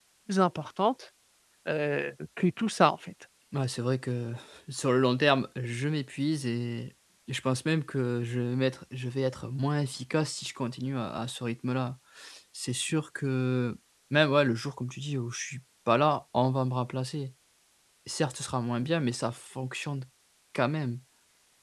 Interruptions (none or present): none